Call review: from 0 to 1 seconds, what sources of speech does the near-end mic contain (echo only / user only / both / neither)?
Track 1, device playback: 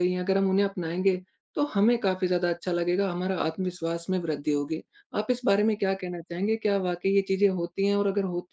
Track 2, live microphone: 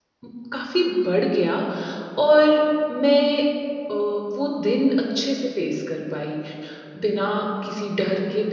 user only